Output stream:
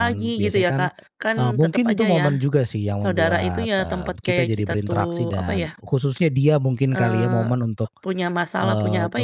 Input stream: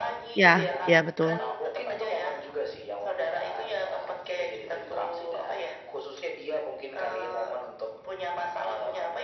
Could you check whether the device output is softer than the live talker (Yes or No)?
Yes